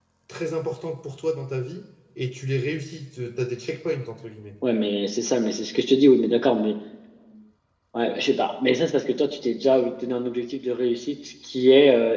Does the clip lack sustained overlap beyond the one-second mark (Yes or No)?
Yes